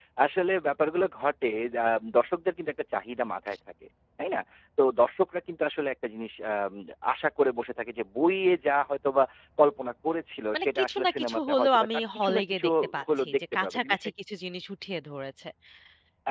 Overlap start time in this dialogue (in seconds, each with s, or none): 10.5 s